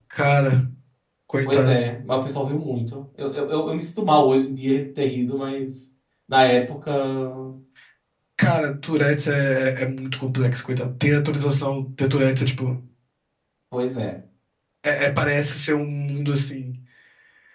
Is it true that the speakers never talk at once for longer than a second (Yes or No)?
Yes